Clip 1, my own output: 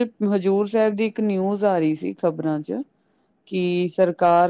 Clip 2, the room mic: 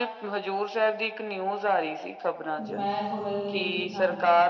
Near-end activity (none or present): present